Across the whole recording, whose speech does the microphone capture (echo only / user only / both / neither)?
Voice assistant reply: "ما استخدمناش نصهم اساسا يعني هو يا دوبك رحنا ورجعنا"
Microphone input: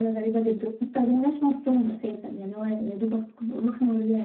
echo only